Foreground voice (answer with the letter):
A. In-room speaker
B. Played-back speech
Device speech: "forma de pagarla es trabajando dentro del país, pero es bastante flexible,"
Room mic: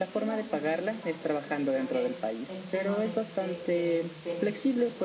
B